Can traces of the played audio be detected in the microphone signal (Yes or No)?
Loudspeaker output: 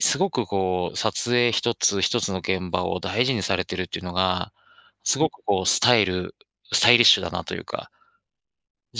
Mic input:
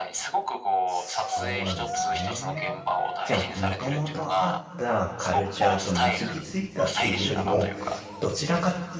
Yes